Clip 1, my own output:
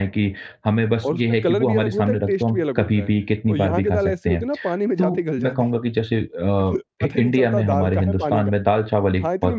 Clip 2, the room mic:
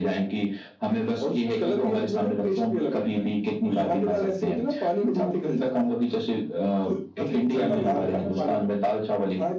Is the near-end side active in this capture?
Yes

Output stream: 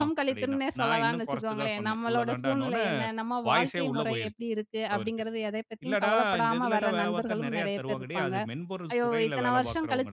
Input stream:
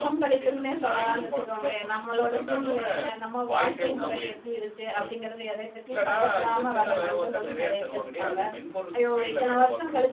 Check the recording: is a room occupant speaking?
No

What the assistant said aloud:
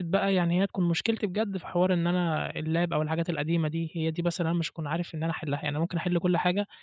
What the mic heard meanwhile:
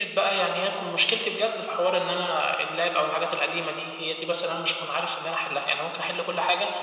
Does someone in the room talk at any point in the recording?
No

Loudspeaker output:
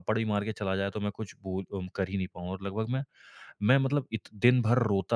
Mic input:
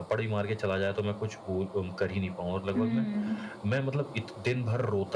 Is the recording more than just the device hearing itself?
Yes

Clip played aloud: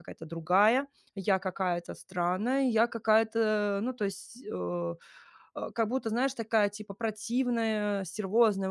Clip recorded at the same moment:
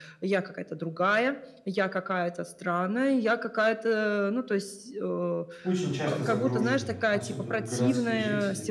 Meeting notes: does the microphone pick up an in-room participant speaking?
Yes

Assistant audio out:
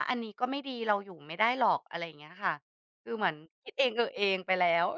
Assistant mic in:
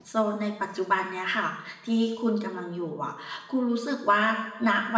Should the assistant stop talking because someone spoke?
Yes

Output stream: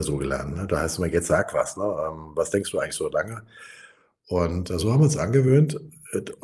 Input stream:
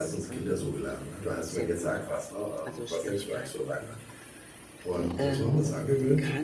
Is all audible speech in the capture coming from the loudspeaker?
No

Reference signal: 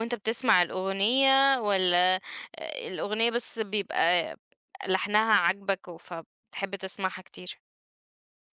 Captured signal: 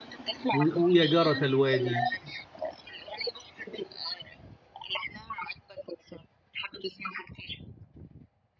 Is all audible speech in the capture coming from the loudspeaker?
No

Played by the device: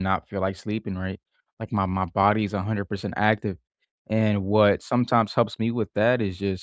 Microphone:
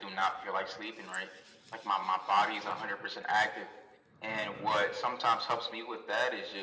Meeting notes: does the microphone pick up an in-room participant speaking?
No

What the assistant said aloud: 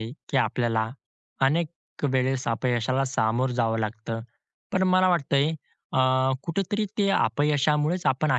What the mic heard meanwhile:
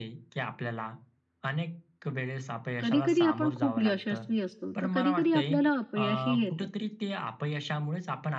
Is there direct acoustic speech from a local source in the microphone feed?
Yes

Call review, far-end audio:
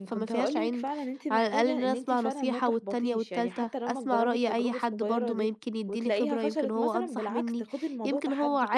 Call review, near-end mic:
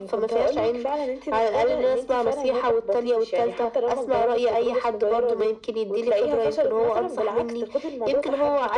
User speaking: No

